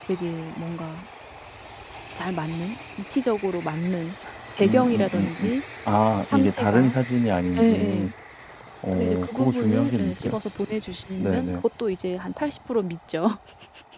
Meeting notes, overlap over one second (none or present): present